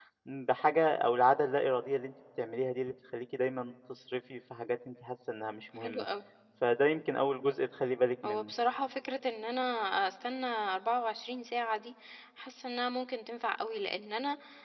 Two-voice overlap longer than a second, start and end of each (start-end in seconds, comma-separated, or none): none